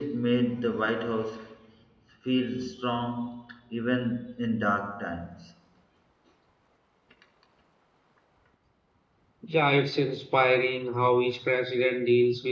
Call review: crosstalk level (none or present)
none